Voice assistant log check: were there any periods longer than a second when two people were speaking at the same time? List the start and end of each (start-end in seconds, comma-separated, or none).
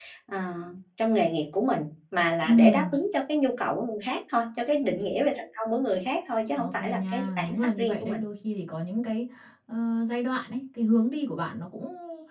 6.5-8.2